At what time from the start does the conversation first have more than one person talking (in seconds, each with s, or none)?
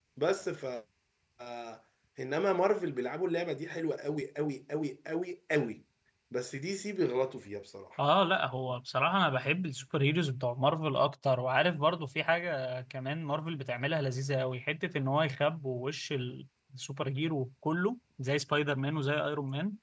none